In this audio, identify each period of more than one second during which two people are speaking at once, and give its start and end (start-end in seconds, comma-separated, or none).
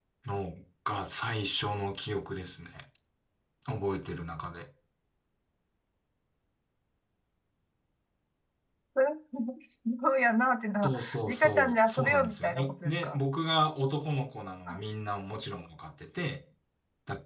10.8-13.2